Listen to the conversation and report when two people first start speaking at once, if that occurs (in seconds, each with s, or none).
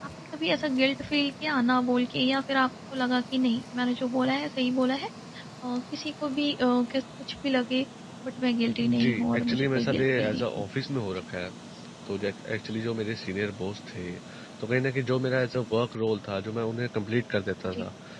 8.8 s